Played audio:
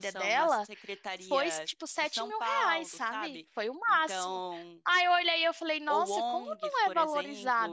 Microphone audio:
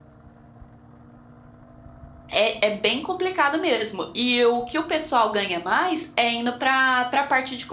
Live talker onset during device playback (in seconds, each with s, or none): 2.3 s